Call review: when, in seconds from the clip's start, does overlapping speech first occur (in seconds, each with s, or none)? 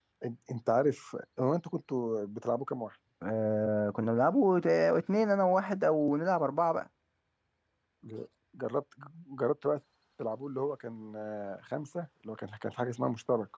none